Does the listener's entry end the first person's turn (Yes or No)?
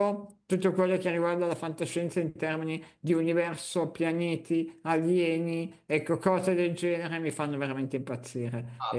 Yes